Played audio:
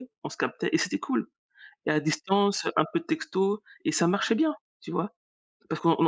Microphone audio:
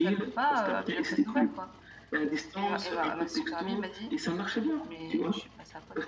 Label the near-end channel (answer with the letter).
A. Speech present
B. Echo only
A